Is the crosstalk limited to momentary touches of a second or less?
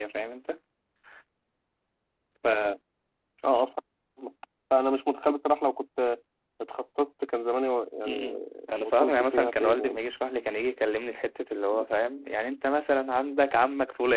No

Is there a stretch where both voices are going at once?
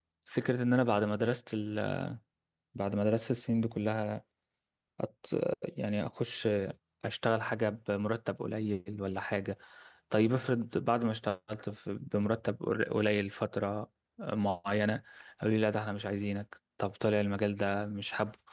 No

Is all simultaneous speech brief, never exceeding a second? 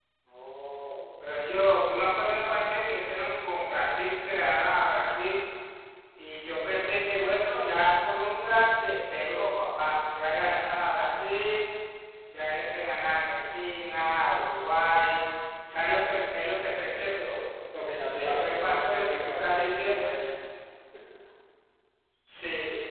No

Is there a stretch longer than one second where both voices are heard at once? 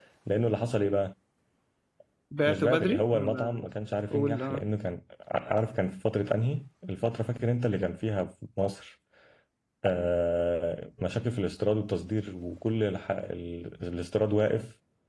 Yes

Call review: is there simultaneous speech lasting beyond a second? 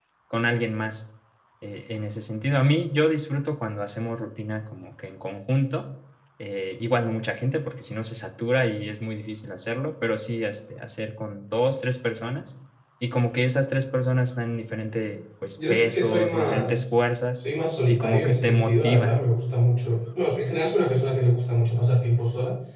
Yes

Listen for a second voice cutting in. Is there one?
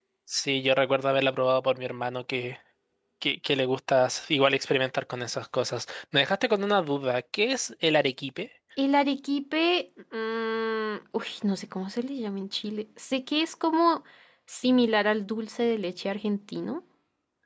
No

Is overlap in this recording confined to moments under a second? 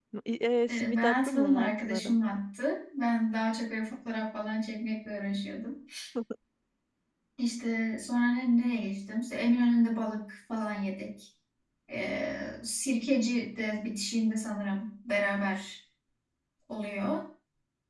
No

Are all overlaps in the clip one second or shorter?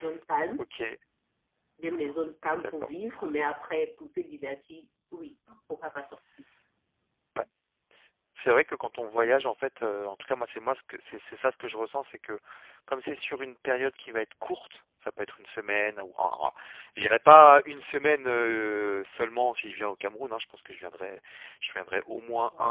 Yes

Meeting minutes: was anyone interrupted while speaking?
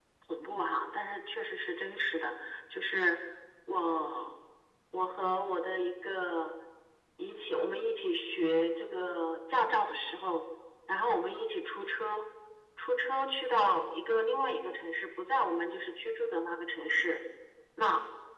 No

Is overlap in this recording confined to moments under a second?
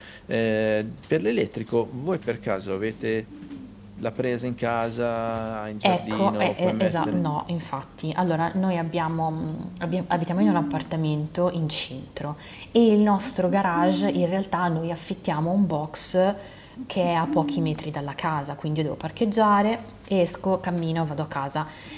No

